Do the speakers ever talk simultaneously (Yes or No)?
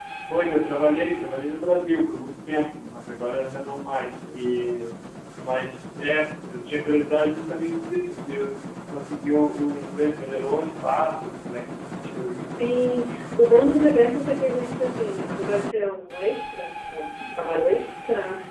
No